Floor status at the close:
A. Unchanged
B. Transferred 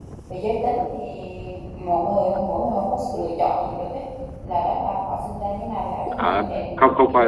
B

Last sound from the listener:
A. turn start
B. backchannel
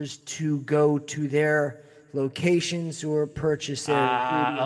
A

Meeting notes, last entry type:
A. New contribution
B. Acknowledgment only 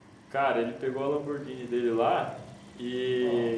B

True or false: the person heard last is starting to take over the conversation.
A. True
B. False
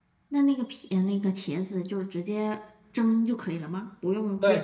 A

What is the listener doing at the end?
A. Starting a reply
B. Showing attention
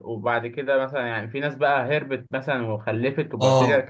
A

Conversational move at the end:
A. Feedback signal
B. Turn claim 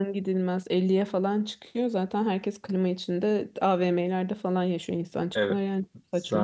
B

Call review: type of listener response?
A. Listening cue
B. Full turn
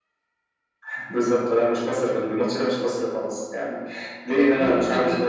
B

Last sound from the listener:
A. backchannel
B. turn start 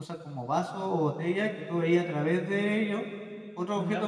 A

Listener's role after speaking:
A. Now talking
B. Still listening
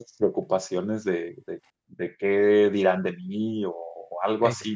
B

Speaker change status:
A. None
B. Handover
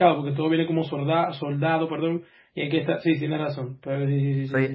B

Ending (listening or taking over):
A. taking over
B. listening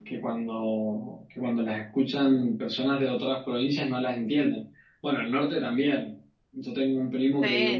B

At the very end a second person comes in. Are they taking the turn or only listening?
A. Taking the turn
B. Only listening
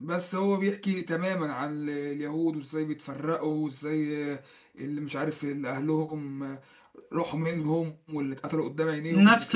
A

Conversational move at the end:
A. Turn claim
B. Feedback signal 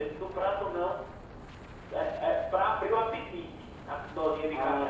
A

